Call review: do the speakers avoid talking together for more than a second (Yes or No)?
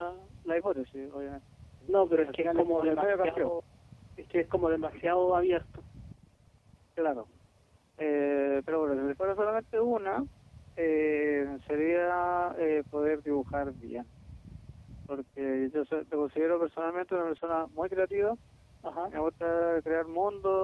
No